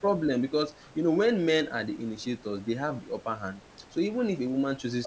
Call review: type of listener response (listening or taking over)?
listening